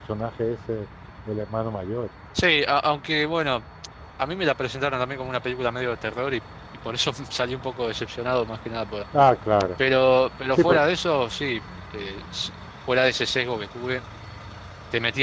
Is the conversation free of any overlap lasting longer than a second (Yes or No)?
Yes